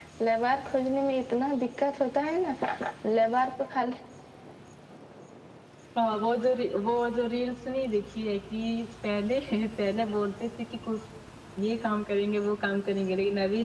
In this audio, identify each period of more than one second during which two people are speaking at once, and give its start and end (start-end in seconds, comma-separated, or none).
none